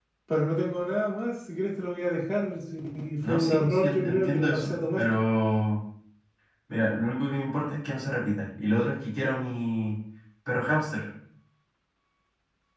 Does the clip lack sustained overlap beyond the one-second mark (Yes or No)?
No